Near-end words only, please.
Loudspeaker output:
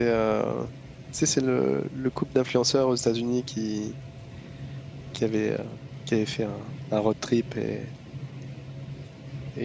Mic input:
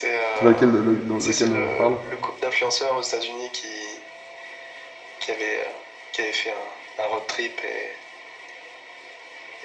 Tu vois lequel, le- dans lequel dont je parle

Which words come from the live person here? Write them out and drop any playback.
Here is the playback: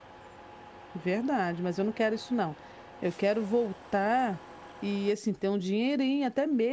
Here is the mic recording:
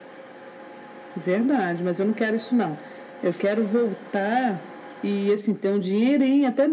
none

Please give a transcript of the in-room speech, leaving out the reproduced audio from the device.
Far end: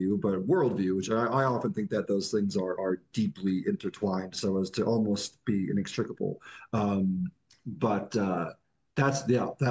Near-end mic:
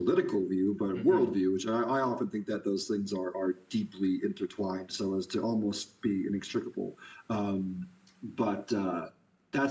hmm

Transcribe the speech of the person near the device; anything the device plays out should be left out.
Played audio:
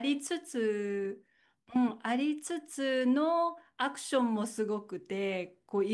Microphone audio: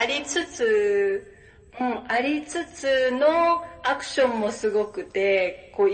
none

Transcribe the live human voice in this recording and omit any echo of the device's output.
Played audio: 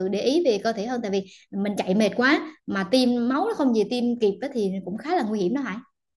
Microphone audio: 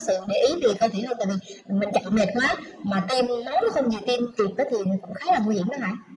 none

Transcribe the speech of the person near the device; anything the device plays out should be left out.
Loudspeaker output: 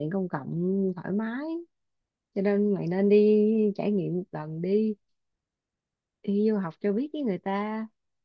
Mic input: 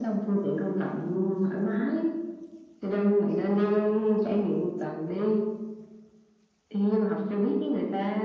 none

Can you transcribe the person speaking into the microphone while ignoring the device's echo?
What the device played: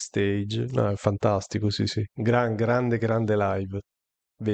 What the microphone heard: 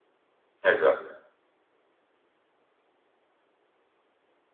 Esatto,

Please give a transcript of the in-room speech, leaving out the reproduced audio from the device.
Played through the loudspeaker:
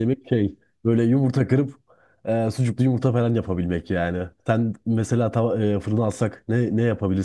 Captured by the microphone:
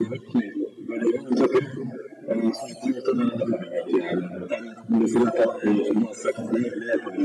none

